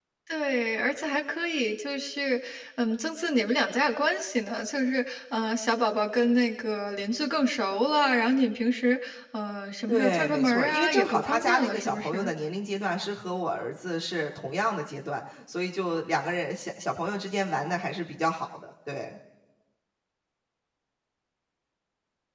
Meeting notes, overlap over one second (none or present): present